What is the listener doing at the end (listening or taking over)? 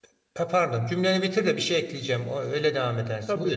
taking over